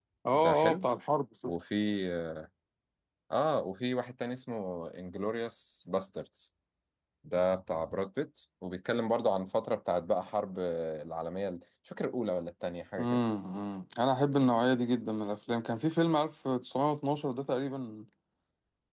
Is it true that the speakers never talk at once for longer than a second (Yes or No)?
Yes